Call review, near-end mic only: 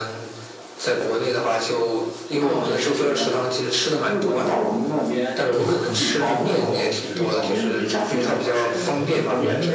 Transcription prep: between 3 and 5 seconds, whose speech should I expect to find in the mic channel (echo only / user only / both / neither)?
echo only